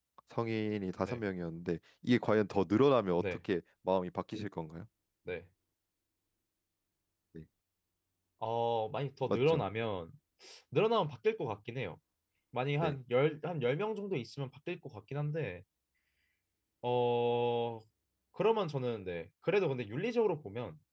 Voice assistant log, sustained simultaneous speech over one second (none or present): none